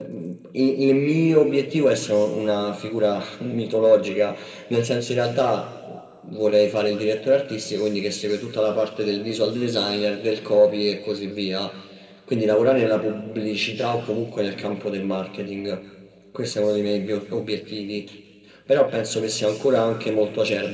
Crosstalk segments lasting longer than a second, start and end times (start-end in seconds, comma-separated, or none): none